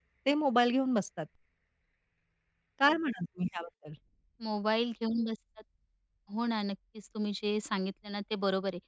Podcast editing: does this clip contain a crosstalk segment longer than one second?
No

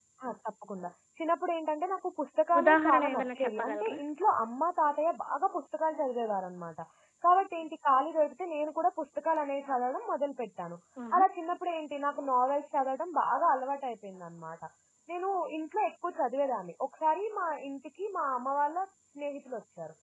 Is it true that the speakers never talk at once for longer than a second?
No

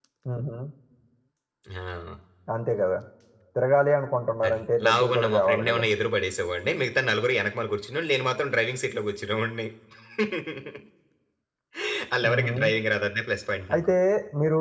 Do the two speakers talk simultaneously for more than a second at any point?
Yes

